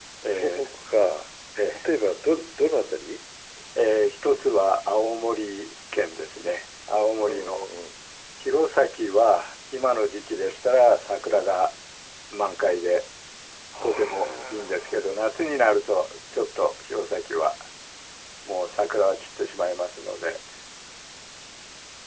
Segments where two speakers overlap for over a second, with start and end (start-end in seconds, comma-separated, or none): 13.8-15.3